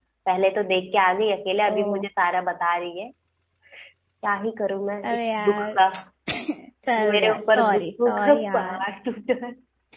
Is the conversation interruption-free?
No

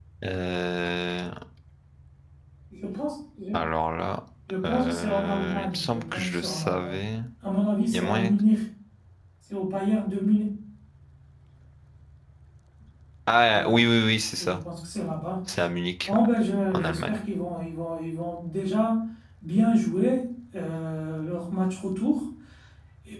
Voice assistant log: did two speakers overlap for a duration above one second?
Yes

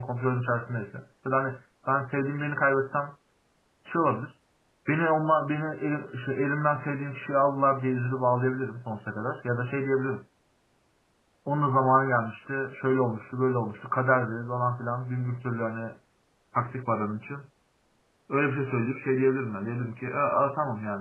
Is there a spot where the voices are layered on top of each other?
No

